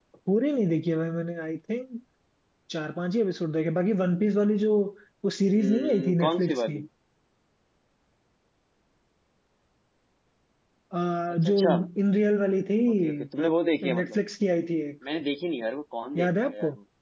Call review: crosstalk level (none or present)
present